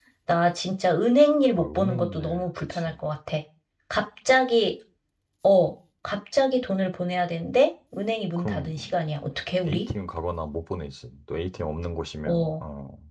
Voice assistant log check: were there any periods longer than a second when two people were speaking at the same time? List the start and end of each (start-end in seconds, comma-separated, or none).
1.6-2.9